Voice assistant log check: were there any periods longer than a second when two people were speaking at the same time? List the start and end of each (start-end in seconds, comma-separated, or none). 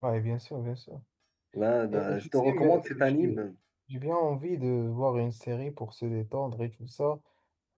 1.9-3.4